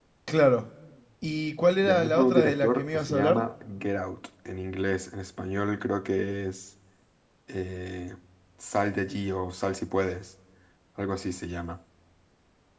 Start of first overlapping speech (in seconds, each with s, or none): 1.8 s